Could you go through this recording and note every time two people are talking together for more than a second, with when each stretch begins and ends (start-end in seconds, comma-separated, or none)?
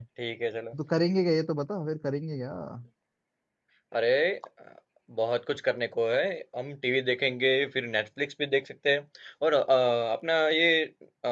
none